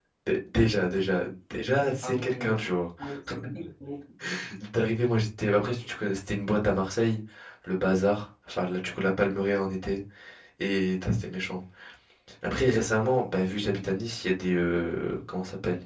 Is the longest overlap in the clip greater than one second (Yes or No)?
No